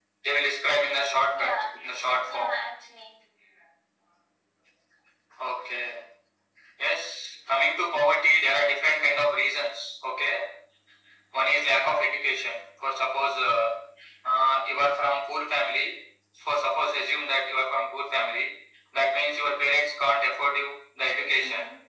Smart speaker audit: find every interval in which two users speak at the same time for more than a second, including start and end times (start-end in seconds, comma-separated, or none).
none